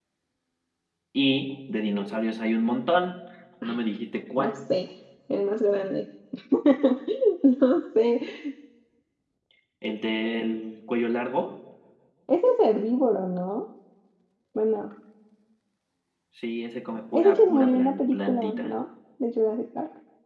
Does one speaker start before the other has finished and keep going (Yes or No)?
Yes